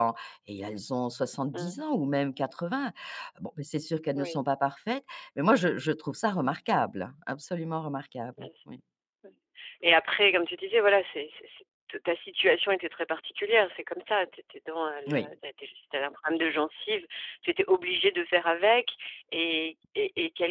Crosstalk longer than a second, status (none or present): none